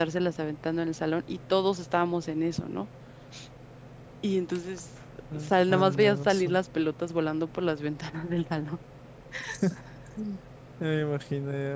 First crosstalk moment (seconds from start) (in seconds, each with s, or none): 5.3 s